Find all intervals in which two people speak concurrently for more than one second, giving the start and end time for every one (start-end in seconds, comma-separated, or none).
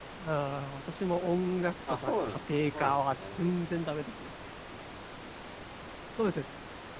1.9-3.5